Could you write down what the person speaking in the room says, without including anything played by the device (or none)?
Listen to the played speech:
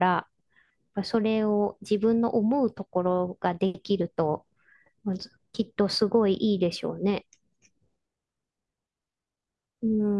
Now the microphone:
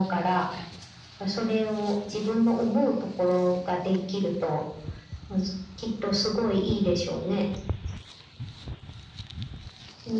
none